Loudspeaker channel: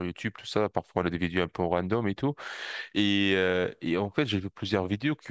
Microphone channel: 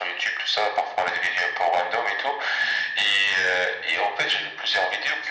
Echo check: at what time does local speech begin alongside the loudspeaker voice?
none

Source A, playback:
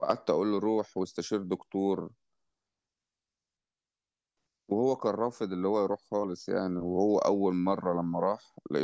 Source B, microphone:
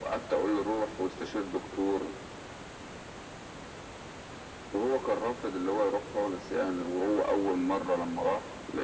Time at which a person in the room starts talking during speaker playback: none

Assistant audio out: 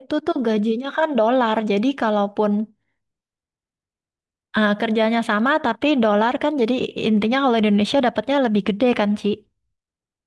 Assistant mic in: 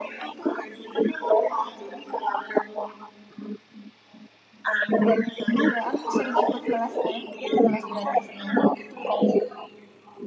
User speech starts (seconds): 5.7 s

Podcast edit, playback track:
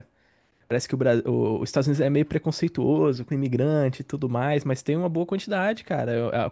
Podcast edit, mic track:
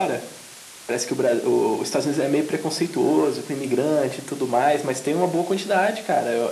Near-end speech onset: none

